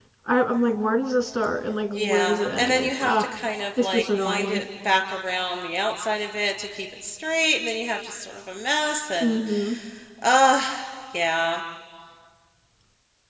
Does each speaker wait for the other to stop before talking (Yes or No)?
No